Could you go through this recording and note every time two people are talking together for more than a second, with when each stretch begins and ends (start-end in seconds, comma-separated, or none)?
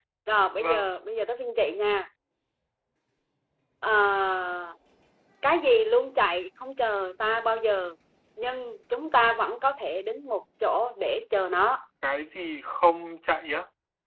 none